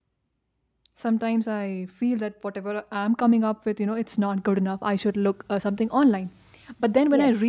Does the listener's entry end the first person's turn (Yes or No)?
No